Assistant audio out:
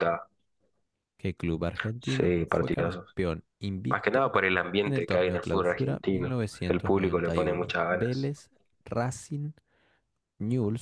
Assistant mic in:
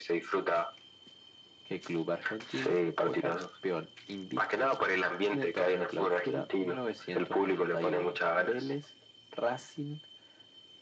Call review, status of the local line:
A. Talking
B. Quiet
B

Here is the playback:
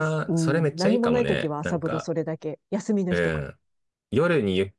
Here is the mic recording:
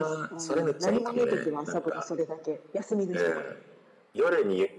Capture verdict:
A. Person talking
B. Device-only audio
B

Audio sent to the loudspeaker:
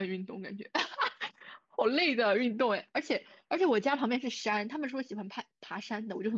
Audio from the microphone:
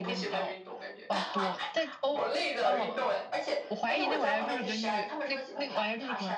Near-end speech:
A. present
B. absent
A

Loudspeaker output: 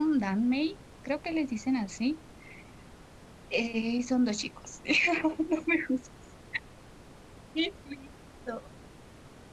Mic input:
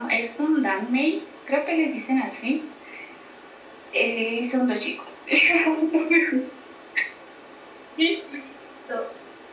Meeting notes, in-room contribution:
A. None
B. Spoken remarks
A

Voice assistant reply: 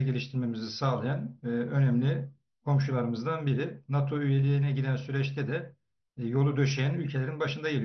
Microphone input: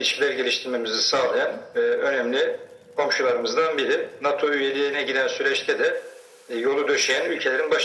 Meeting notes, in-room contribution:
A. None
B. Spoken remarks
A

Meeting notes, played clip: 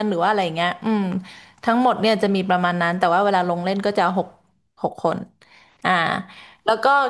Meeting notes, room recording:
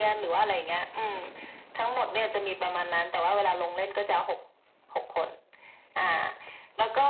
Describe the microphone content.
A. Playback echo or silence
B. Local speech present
A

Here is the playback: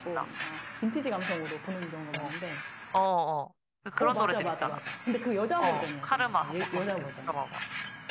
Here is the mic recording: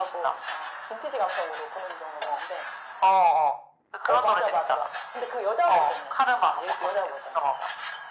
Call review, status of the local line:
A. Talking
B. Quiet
B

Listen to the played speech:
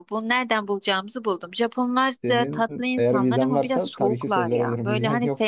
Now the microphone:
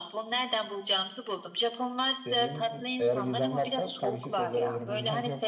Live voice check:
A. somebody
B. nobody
B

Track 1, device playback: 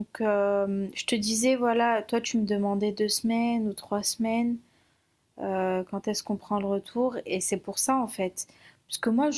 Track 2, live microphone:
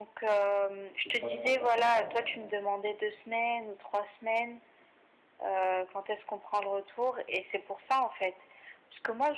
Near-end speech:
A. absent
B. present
B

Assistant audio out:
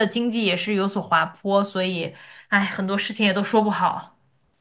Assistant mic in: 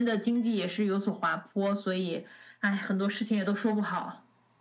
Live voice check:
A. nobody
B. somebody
A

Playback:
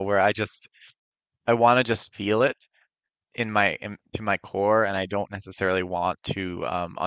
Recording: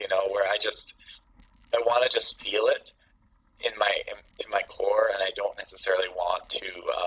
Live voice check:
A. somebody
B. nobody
B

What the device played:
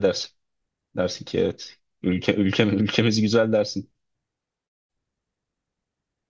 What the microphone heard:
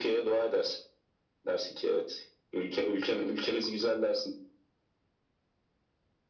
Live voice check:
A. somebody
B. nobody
B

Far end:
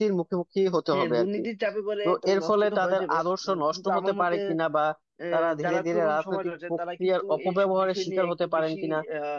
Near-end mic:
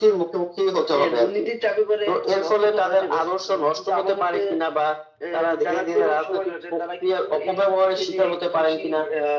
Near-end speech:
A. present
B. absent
B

